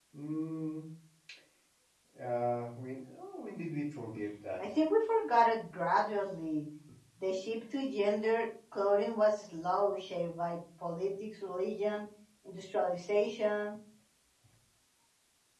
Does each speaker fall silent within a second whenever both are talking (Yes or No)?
Yes